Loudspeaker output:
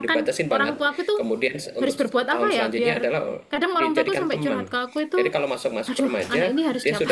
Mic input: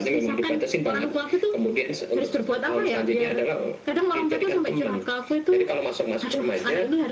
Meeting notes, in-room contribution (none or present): none